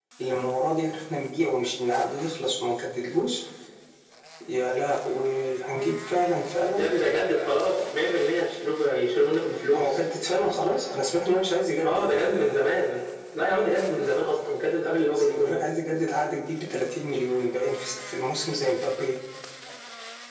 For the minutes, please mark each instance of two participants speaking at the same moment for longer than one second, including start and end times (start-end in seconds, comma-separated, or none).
none